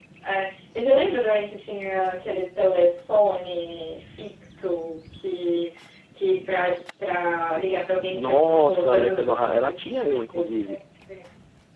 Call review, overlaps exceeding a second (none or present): present